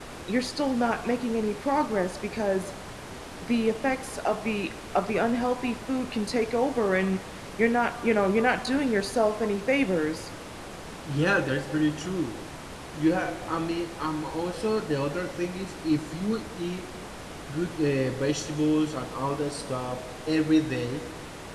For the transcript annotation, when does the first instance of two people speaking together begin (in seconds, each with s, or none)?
none